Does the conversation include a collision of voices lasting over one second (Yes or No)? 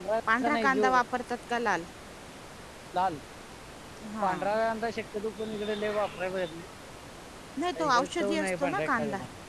Yes